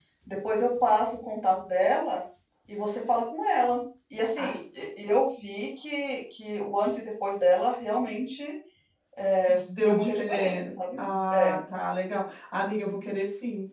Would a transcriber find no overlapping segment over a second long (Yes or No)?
No